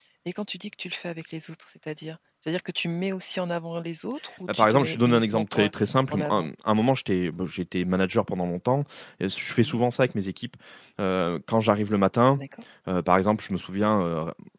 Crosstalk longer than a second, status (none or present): present